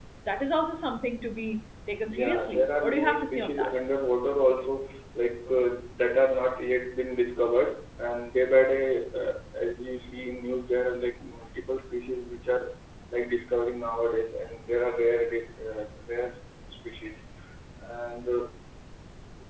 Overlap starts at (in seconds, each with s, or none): 2.1 s